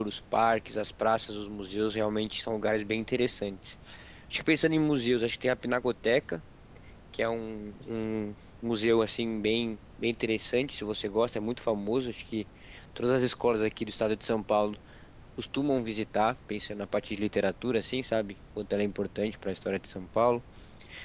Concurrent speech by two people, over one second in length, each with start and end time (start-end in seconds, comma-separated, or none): none